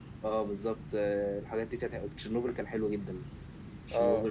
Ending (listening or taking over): listening